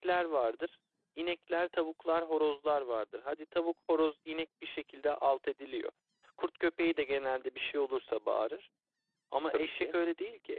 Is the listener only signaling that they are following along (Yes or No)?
Yes